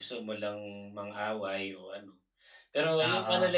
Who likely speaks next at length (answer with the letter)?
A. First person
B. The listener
A